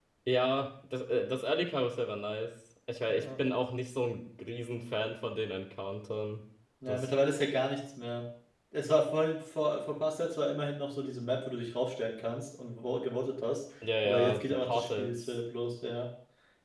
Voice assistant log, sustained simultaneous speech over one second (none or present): present